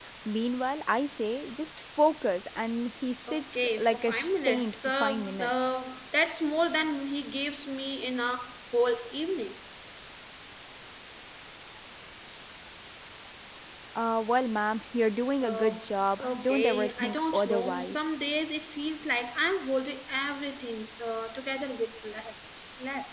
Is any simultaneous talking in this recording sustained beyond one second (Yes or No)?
Yes